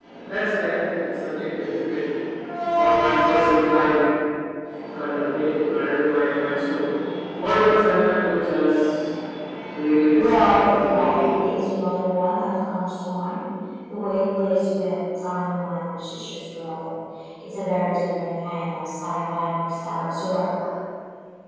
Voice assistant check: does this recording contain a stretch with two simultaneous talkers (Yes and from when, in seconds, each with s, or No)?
Yes, from 10.1 s